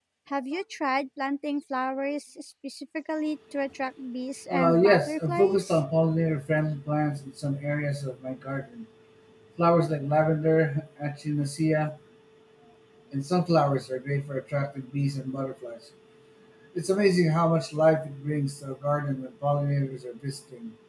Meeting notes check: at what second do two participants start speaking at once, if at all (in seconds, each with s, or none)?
4.5 s